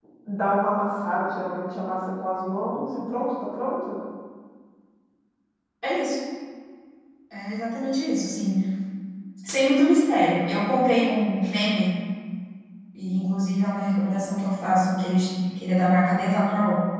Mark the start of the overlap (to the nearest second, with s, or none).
none